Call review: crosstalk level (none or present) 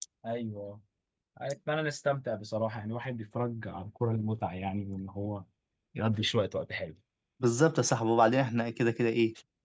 none